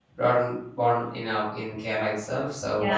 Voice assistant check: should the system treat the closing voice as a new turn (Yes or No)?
Yes